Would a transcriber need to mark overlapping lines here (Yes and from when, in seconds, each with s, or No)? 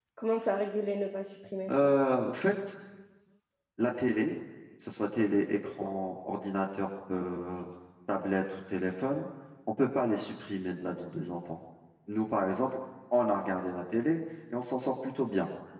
No